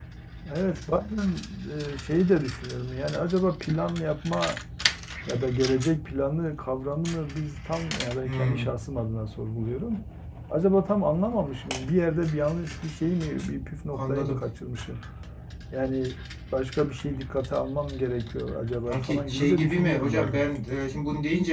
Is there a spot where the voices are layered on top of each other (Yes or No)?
Yes